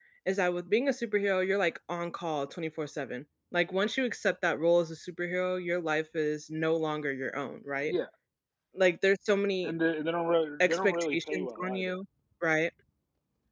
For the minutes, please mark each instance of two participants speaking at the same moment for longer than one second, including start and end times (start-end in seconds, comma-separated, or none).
10.6-11.9